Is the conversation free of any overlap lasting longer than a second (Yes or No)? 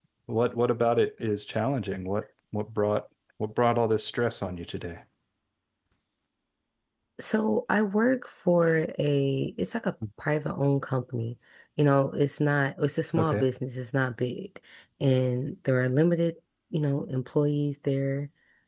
Yes